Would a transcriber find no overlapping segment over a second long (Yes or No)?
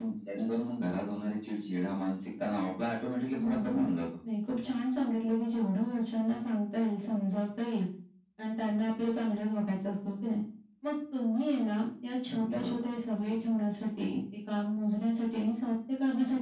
Yes